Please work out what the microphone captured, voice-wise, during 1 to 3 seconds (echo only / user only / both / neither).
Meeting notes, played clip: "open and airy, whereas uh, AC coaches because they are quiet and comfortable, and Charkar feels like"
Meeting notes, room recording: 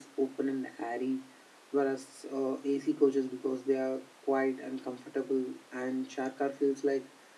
echo only